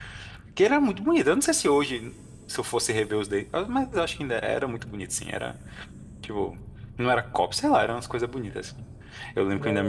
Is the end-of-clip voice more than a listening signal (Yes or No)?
No